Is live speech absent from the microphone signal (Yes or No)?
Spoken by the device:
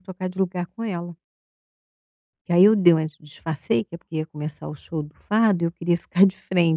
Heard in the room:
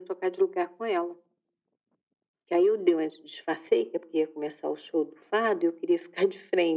Yes